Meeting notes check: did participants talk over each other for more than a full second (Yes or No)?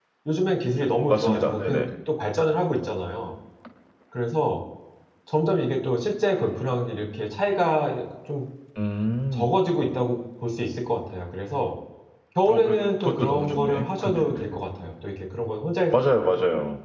Yes